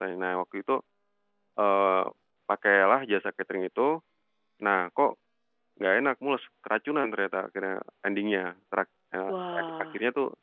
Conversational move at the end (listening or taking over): listening